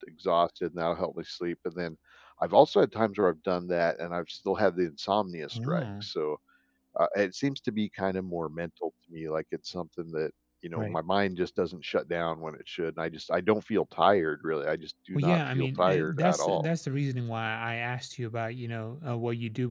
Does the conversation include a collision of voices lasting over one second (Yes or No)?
Yes